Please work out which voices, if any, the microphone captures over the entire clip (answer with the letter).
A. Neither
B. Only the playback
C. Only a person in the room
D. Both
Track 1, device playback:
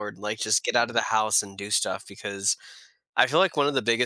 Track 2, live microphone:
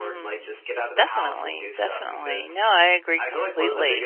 D